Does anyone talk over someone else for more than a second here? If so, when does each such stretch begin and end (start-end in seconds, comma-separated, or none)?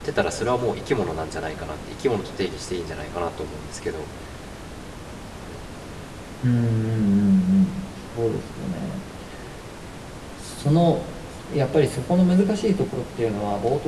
none